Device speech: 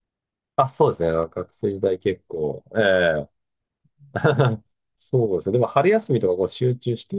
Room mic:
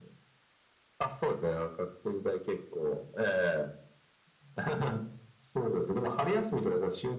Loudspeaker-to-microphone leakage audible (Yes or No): Yes